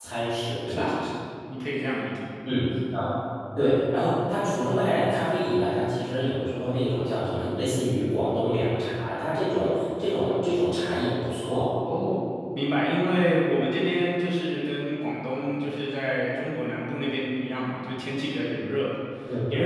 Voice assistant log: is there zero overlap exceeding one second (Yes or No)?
Yes